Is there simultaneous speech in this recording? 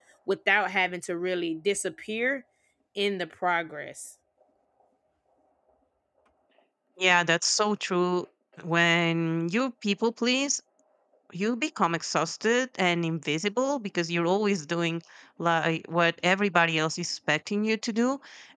No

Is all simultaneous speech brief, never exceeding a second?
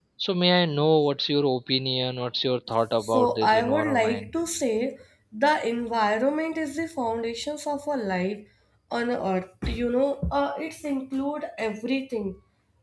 No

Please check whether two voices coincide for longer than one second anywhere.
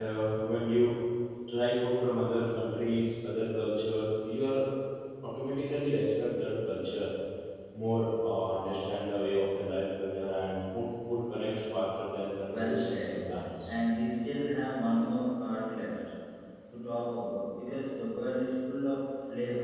Yes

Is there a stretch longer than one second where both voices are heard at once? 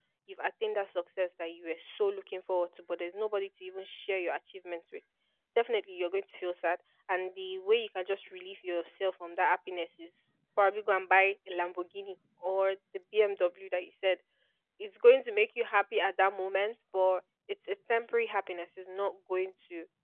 No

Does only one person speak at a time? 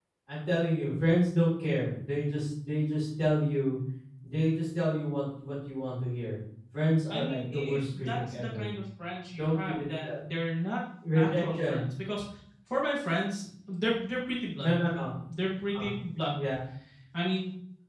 No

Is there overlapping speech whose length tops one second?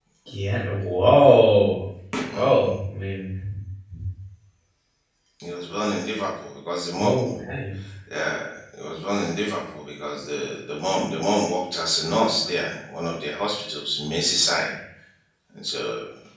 No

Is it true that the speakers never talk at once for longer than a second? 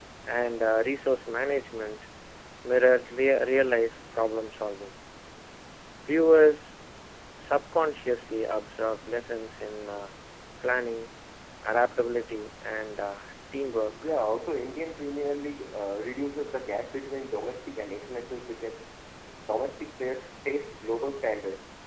Yes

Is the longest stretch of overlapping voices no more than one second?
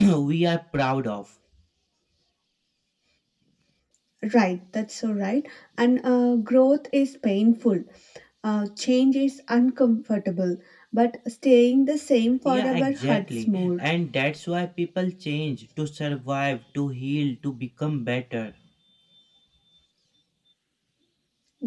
No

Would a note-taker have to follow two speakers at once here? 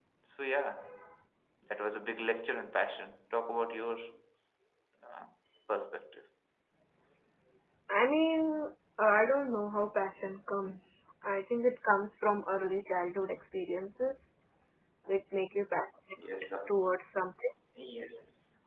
No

